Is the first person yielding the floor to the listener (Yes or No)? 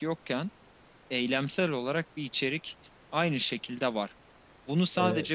No